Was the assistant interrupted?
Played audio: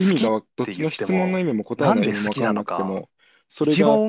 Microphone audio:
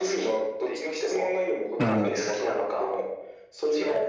Yes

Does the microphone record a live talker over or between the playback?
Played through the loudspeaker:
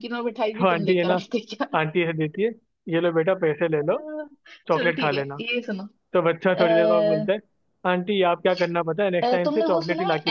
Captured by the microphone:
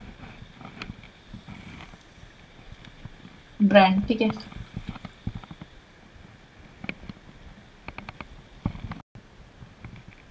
Yes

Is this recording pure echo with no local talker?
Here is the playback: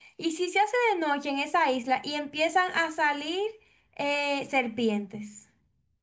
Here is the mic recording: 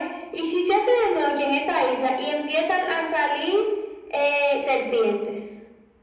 Yes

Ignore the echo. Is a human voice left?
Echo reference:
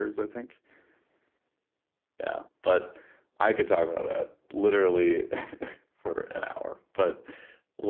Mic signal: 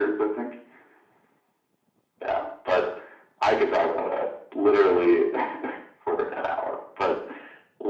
No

